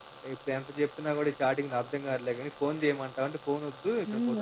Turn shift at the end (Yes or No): Yes